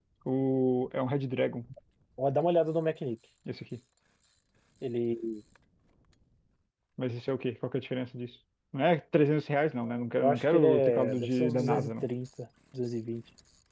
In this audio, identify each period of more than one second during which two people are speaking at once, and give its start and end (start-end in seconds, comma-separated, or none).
10.2-12.1